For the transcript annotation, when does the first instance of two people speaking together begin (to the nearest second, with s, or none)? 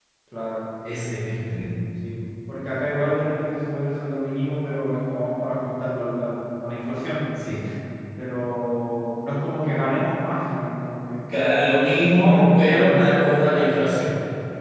12 s